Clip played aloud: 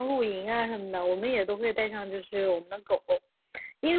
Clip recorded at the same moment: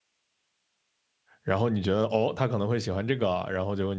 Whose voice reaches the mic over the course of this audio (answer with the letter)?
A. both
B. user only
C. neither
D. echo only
B